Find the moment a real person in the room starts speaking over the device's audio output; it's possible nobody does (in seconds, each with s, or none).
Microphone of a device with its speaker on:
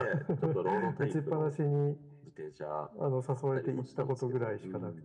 none